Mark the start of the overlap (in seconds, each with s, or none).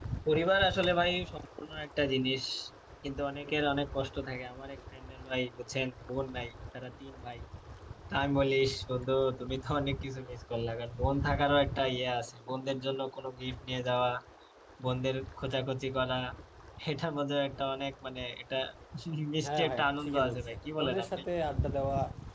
19.4 s